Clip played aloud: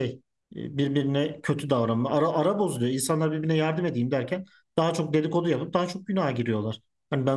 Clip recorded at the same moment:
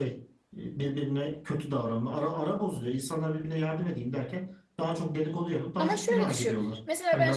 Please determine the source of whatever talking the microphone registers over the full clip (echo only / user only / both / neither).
both